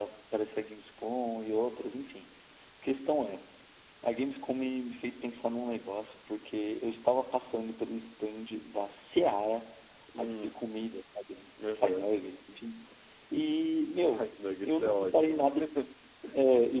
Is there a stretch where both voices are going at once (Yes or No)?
Yes